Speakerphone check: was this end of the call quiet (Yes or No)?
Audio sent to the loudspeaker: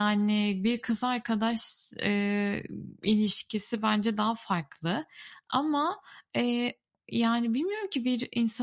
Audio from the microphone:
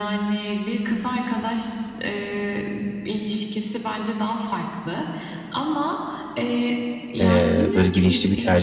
No